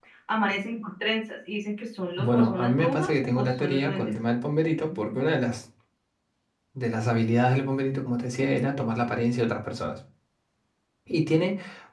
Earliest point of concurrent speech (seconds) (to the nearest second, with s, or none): 2 s